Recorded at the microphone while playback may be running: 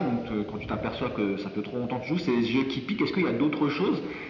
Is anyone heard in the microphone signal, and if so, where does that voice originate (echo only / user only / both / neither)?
echo only